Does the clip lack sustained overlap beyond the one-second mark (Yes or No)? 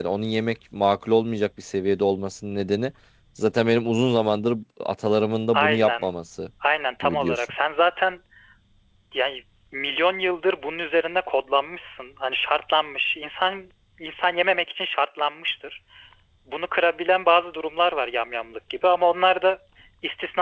Yes